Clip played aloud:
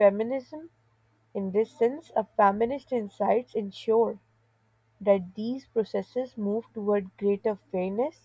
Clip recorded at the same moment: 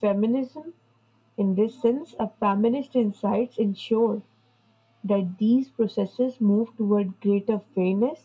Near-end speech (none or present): none